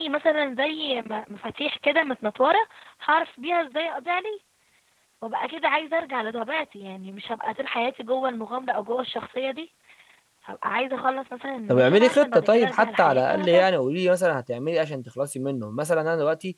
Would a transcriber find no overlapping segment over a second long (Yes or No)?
No